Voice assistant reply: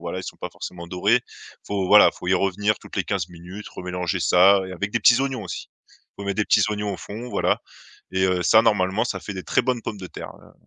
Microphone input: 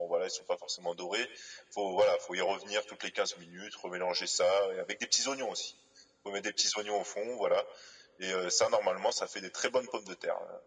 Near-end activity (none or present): none